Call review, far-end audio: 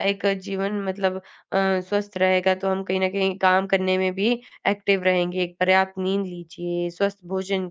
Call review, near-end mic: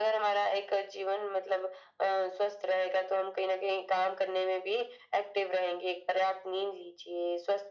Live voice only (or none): none